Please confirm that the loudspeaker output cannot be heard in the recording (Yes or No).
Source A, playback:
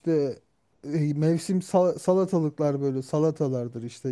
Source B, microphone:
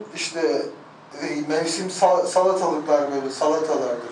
No